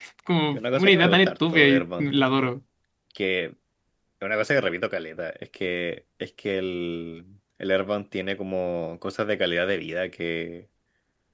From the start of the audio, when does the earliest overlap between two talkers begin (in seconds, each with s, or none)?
0.5 s